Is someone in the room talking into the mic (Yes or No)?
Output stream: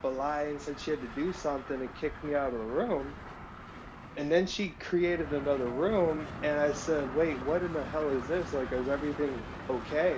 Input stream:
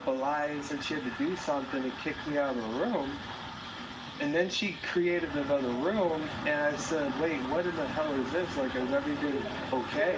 Yes